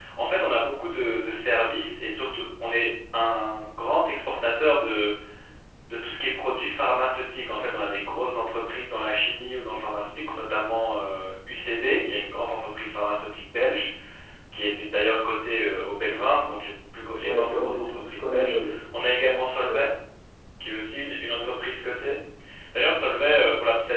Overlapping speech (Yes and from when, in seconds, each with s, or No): Yes, from 17.2 s